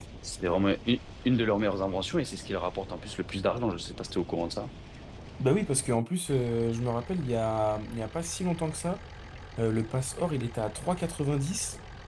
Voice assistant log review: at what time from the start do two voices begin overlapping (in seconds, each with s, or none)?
none